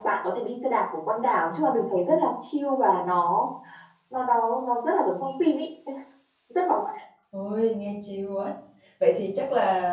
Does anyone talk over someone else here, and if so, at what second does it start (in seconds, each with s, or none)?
none